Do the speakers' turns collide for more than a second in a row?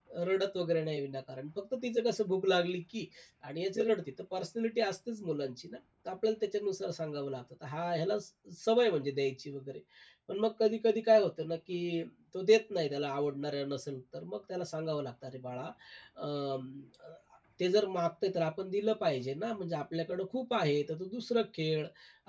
No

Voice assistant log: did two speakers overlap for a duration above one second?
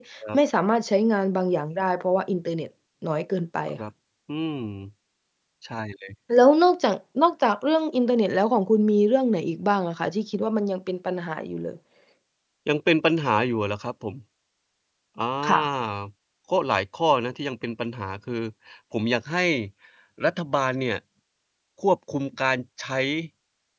No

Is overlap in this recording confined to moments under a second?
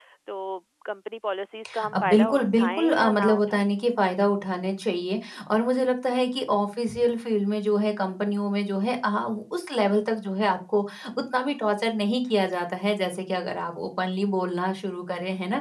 No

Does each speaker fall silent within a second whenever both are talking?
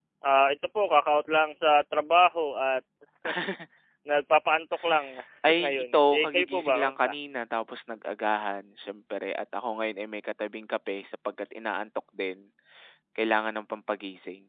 No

